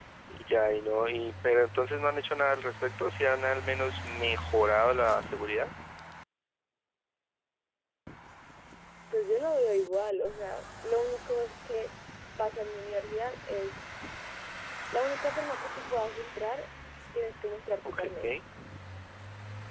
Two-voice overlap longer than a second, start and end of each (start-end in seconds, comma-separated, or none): none